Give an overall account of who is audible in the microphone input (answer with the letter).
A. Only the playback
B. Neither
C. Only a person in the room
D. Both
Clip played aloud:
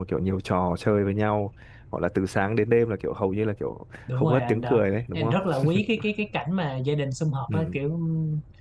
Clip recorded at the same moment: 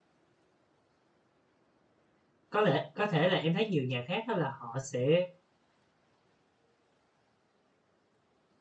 C